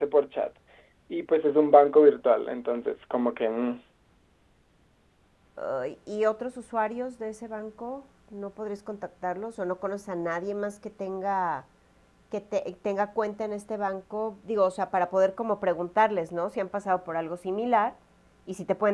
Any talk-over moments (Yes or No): No